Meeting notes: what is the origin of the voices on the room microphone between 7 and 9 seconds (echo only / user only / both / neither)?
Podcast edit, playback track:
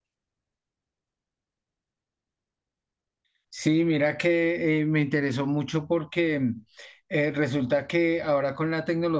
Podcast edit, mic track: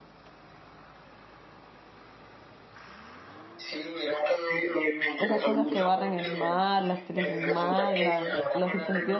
both